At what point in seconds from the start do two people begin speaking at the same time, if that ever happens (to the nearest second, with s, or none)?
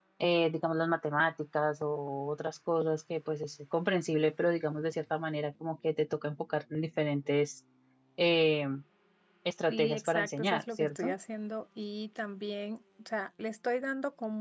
10 s